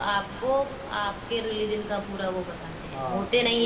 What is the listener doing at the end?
taking over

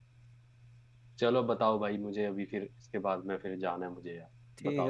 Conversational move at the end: taking over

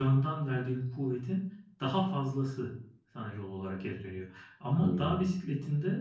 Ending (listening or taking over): listening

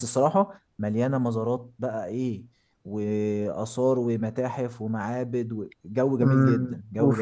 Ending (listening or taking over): taking over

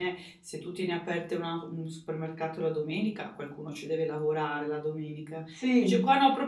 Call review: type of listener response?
listening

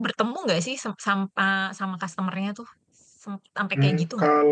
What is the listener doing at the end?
taking over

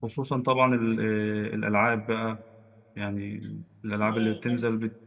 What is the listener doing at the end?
listening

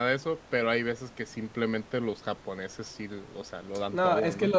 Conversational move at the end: taking over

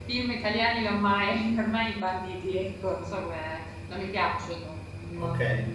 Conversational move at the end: taking over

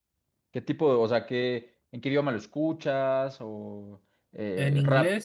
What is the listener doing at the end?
taking over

